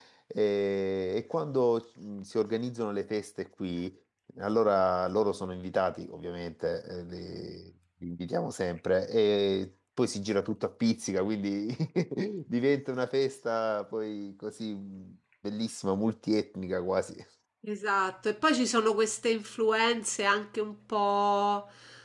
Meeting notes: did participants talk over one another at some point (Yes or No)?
No